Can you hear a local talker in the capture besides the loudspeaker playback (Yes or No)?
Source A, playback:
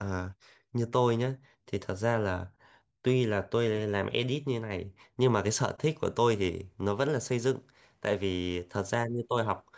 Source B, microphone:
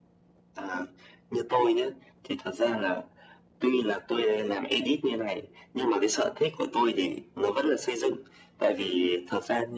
No